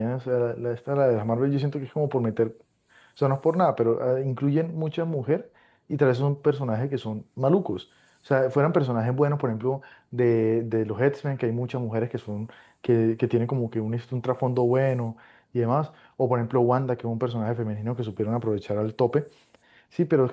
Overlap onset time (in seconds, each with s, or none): none